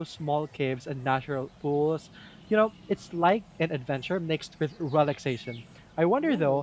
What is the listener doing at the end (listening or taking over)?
listening